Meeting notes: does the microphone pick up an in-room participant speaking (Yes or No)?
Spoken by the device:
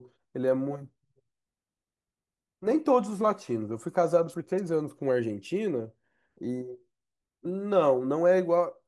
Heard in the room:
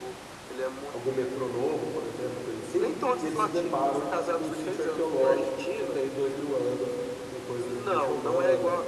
Yes